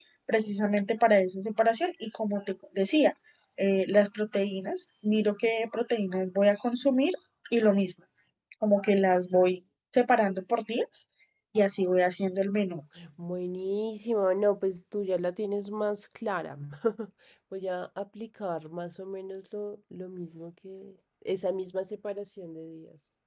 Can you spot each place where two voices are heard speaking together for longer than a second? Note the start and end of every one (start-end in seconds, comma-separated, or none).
none